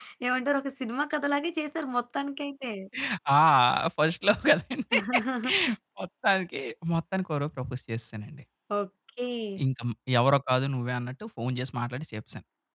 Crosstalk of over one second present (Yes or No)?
No